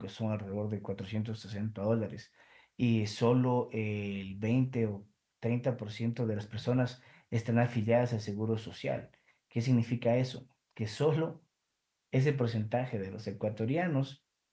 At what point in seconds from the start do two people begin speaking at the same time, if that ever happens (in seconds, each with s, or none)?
none